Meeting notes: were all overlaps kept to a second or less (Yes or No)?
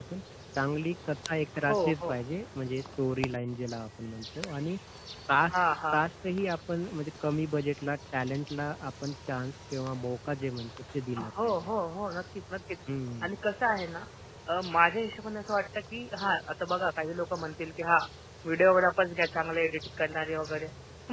Yes